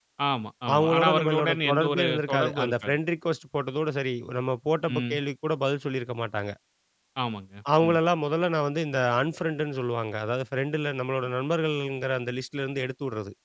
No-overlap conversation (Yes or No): No